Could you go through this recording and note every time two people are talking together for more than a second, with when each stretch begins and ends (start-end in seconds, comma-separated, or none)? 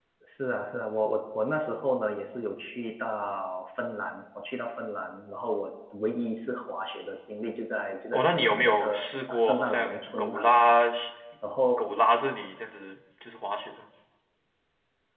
8.1-10.6